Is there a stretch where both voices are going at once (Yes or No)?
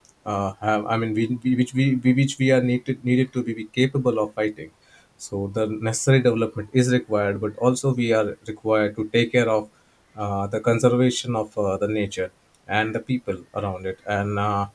No